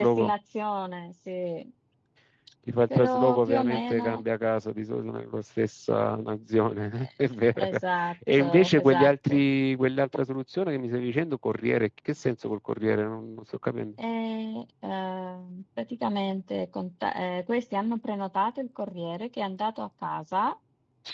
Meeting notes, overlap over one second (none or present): present